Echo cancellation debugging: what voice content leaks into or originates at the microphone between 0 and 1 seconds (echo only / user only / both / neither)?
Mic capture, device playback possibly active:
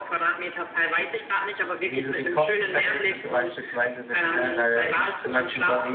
echo only